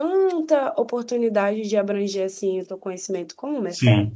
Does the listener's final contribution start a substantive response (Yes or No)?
Yes